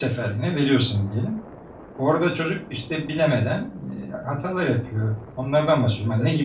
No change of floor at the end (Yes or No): Yes